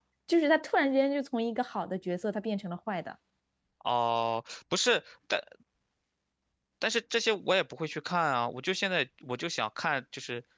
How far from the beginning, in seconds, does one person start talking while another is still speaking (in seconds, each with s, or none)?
none